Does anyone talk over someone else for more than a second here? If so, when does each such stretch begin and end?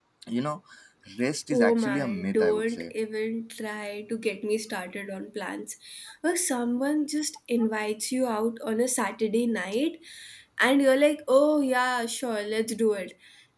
1.5-2.9

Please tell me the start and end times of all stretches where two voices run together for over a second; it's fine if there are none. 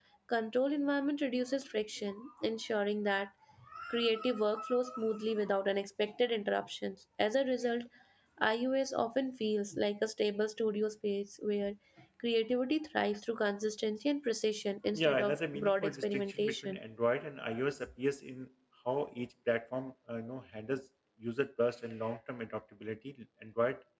14.9-16.8

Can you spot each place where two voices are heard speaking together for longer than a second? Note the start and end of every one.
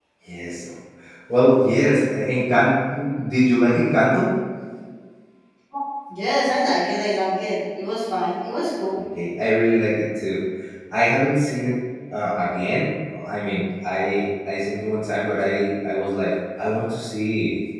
none

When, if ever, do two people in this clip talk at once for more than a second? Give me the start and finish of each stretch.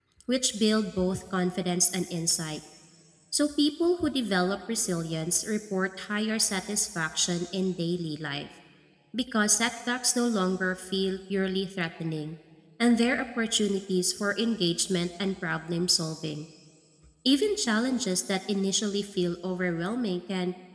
none

